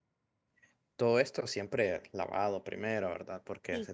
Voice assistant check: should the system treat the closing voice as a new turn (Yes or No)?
No